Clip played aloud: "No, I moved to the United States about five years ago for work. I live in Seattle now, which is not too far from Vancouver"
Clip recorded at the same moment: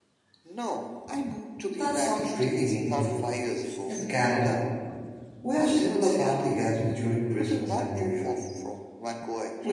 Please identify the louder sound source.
user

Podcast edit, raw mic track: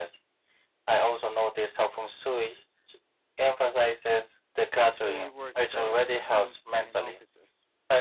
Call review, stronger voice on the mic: echo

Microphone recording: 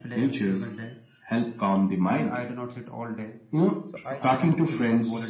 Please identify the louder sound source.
echo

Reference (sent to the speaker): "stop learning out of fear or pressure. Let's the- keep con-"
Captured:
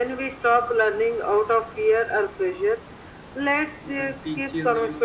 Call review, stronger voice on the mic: echo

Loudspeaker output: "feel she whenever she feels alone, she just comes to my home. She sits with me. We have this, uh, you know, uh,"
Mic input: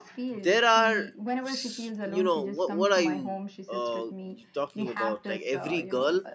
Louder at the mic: user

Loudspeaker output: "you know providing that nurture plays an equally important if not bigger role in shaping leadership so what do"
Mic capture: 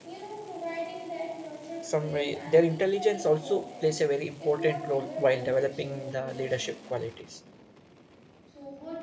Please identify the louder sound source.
user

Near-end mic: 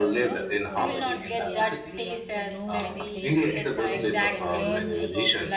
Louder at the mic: echo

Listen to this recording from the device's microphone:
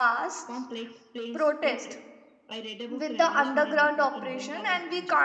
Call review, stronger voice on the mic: user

